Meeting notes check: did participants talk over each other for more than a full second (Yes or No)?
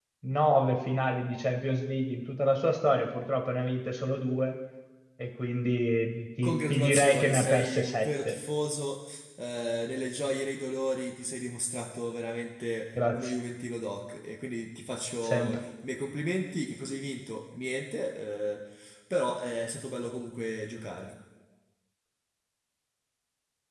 Yes